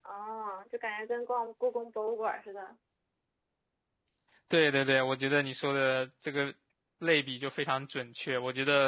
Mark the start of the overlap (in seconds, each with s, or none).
none